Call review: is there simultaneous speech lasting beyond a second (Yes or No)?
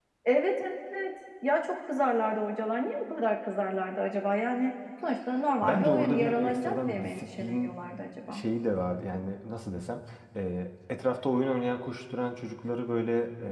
Yes